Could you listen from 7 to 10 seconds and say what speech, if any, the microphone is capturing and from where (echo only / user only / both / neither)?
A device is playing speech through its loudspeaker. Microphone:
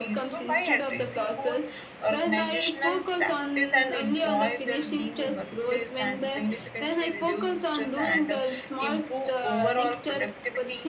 both